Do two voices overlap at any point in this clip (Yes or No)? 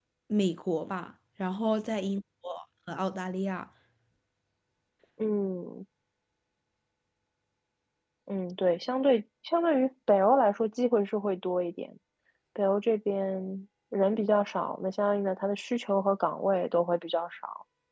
No